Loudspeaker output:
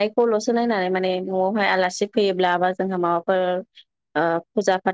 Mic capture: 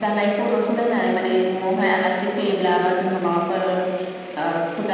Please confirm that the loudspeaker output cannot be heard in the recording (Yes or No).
No